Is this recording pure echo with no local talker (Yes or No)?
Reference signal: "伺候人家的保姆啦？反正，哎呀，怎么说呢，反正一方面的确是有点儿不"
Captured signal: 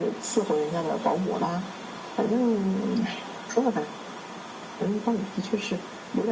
Yes